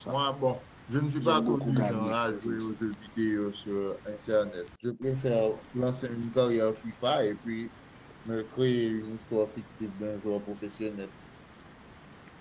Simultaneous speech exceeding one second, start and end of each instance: 1.2-2.8

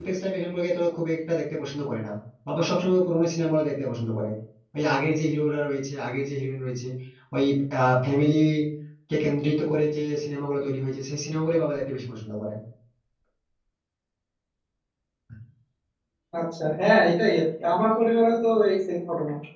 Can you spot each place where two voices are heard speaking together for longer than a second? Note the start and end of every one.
none

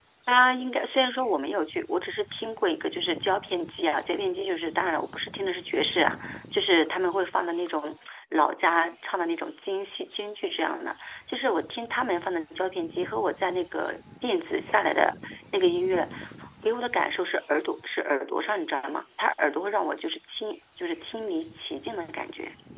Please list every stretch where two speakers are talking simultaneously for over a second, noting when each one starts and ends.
none

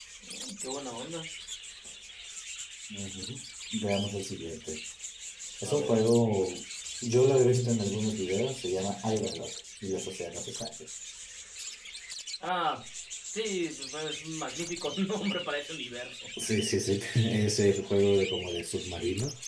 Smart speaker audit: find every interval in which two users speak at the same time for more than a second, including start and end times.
none

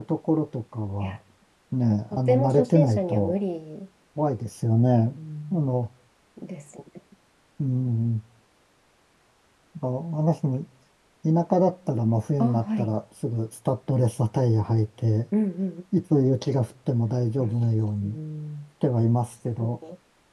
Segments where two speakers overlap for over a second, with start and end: 2.1-3.3

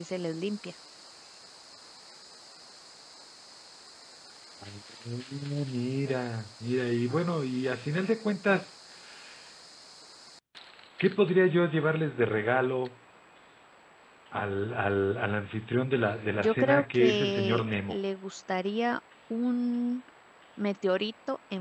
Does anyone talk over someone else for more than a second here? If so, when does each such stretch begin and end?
16.4-18.0

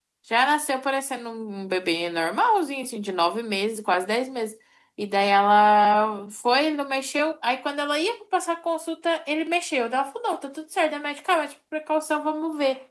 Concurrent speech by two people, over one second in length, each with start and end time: none

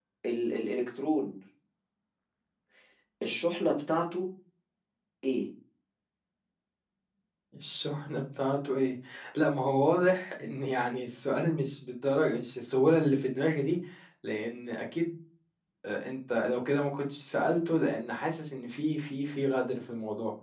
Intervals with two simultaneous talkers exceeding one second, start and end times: none

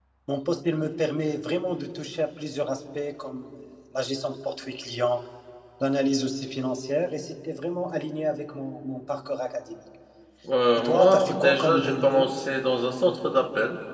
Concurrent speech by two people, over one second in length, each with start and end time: 10.8-12.3

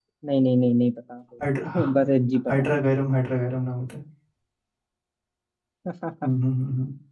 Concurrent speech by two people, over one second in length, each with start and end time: none

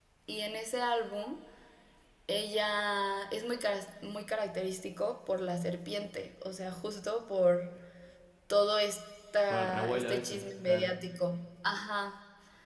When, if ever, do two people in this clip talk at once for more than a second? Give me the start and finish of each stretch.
9.5-10.9

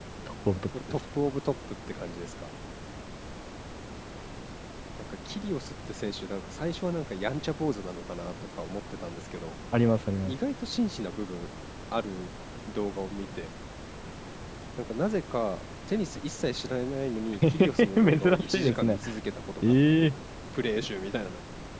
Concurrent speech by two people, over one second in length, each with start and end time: 17.5-19.0

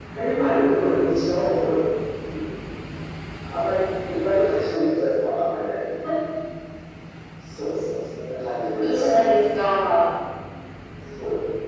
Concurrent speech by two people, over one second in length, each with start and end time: none

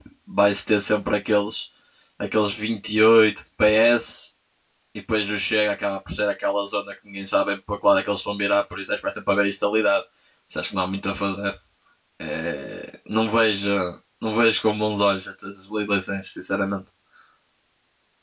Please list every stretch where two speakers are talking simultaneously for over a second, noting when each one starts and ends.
none

